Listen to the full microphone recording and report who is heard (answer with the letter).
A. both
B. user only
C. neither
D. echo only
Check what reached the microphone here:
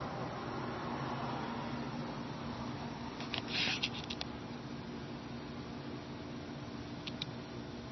C